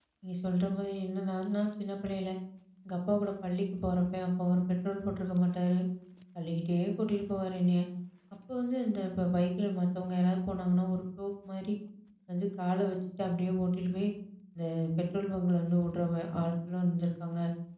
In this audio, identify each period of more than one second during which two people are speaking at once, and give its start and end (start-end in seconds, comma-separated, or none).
none